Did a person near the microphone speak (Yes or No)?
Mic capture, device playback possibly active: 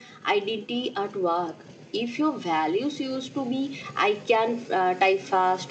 No